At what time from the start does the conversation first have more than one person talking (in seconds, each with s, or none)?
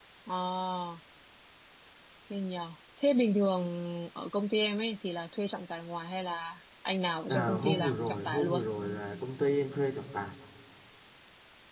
7.3 s